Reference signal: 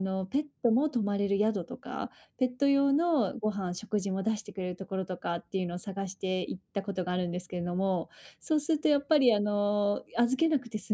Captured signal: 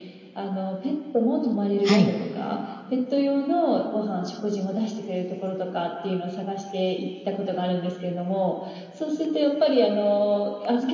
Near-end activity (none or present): present